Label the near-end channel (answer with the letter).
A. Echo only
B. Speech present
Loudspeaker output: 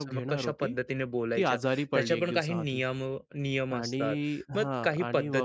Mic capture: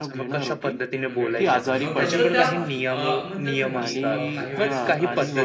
B